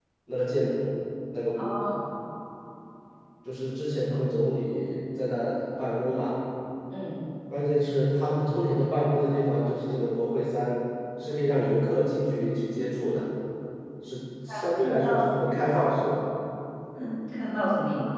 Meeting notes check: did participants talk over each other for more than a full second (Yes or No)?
Yes